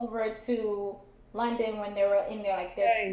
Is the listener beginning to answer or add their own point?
No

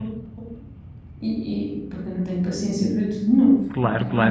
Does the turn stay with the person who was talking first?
No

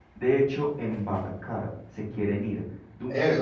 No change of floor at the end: No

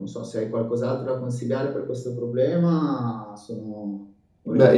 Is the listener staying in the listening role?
No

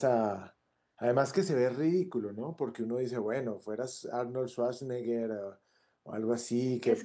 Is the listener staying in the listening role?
No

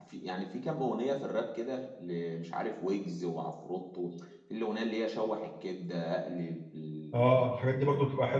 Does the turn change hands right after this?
Yes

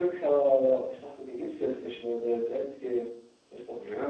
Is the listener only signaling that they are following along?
No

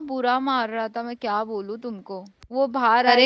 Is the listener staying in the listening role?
No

